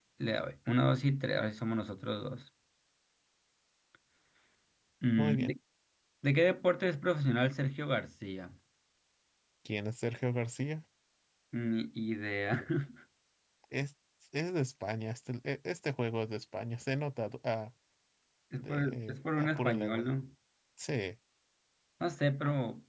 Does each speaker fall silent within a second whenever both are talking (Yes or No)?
No